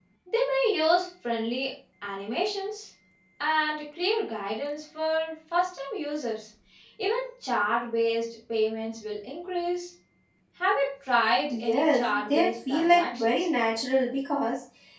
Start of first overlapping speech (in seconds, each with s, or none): 11.5 s